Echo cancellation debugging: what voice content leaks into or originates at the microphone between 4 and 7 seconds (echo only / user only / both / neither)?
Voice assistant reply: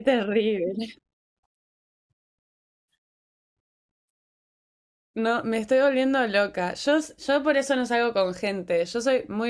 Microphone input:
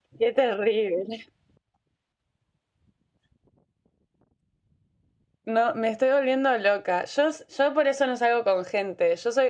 echo only